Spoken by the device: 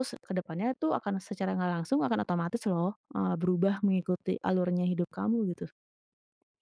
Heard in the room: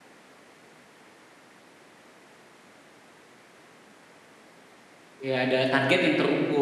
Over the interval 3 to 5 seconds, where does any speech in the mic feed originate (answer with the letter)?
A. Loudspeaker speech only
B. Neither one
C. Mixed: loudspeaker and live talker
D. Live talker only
B